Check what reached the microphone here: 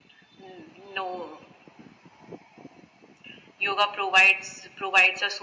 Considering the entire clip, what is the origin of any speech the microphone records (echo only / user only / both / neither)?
echo only